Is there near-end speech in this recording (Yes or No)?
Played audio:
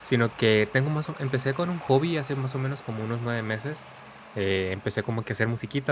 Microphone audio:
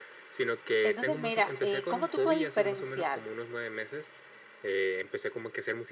Yes